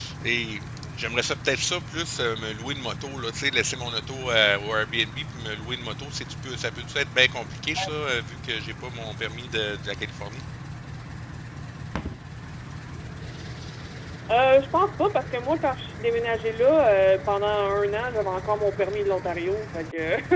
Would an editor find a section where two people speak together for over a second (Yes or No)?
No